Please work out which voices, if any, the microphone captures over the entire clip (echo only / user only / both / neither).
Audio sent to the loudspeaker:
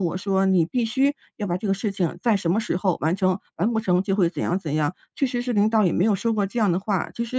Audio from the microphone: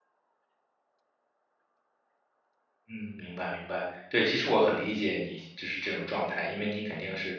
user only